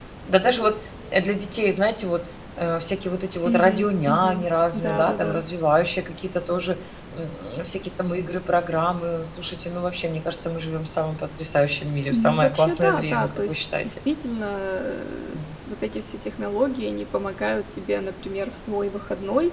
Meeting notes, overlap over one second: present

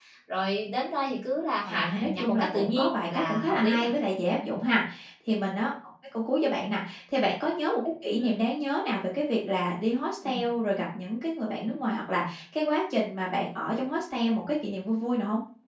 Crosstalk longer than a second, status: present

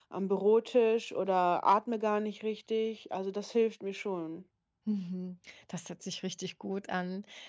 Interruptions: none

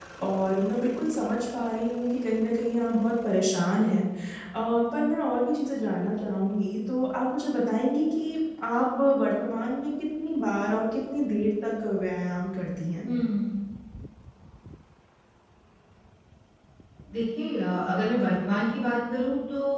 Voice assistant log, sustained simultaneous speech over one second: none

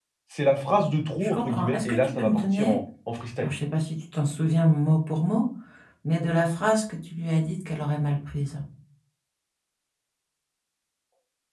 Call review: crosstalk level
present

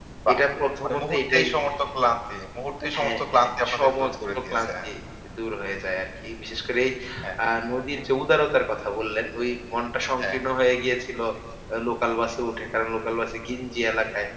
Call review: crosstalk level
present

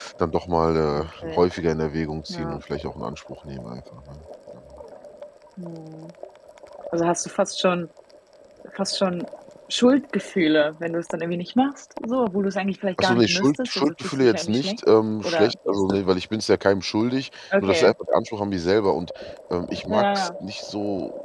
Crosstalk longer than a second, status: present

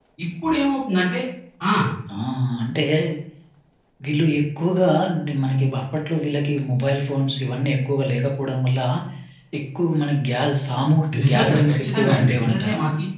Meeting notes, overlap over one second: present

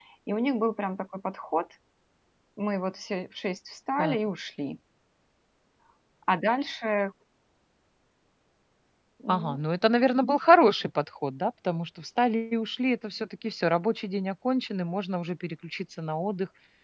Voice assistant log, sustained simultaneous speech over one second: none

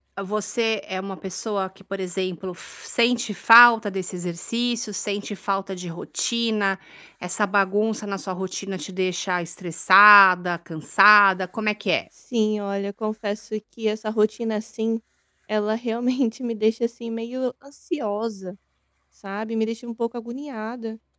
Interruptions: none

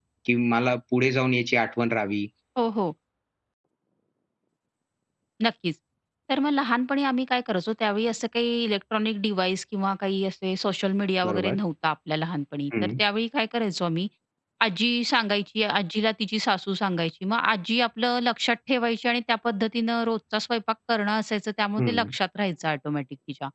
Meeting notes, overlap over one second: none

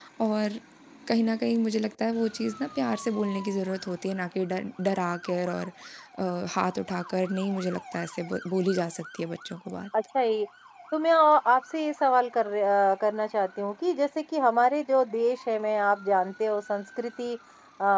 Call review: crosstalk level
none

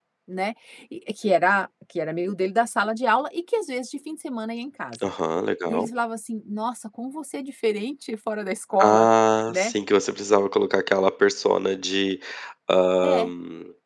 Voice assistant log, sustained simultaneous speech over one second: none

